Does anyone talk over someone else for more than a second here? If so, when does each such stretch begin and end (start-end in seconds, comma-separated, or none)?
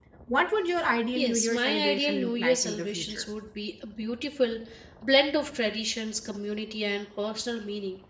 1.1-3.2